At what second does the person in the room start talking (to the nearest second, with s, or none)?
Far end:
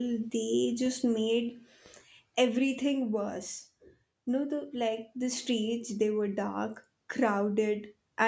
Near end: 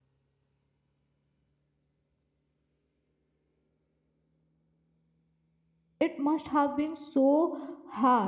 6 s